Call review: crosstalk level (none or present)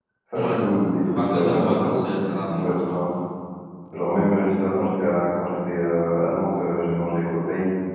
present